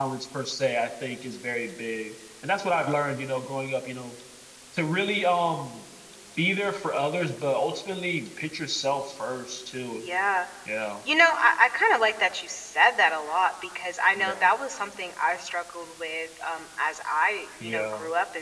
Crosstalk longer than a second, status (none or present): none